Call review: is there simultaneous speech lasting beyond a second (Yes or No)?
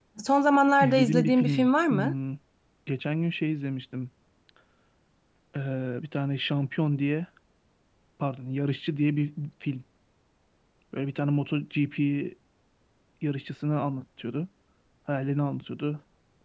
Yes